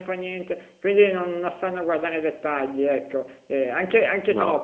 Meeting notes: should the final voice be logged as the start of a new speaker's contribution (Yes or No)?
No